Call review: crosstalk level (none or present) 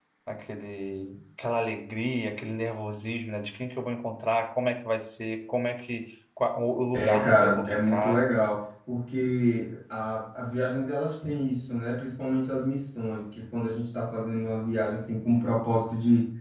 present